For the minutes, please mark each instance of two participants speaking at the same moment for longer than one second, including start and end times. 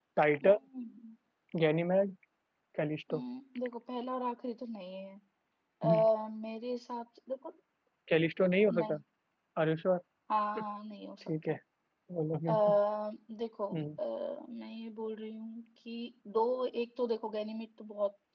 none

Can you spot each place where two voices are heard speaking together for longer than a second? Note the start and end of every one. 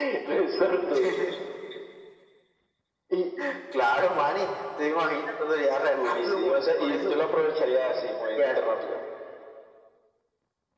5.9-7.2

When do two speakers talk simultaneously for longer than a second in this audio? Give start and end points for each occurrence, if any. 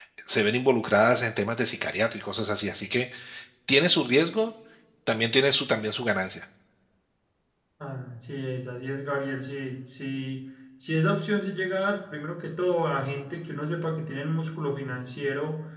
none

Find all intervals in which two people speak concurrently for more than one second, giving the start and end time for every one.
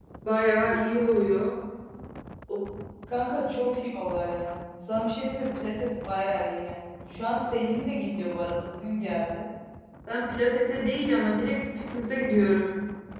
none

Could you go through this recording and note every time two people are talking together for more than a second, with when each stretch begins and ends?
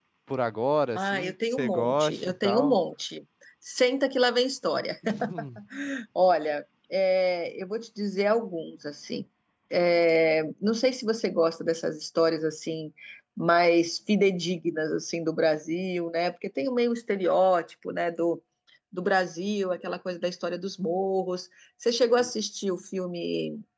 0.9-2.8

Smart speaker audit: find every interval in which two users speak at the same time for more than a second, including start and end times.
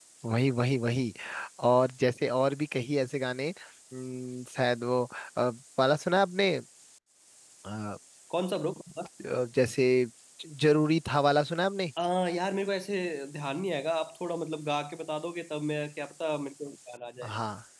none

